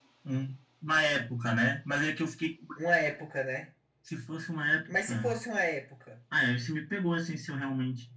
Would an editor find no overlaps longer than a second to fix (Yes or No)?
Yes